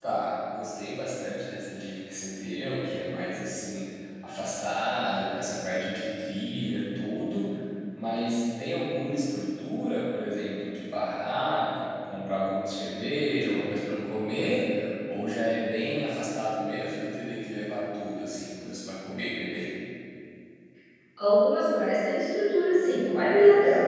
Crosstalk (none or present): none